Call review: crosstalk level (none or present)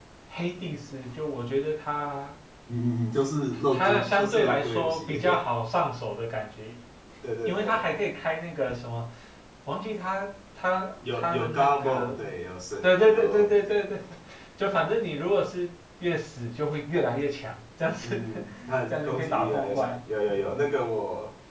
present